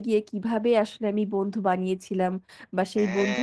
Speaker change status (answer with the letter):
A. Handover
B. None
B